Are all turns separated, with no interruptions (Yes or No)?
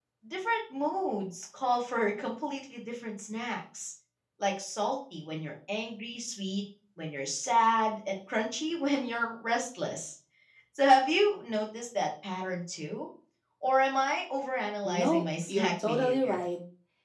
No